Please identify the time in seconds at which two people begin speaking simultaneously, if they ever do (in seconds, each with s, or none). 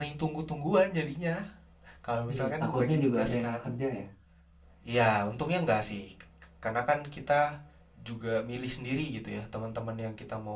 2.3 s